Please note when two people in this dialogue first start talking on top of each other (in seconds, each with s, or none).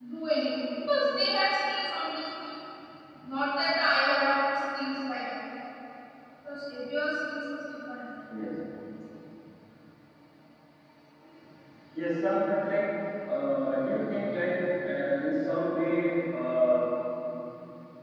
none